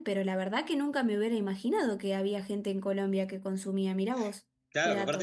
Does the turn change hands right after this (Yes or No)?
Yes